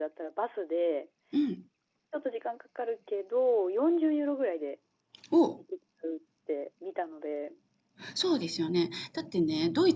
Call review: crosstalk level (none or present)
none